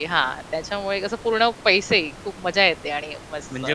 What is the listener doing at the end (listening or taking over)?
listening